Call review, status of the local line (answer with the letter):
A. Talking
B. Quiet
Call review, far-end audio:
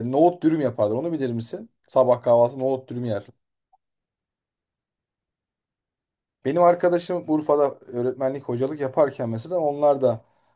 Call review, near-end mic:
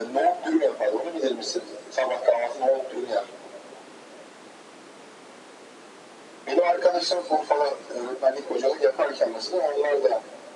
B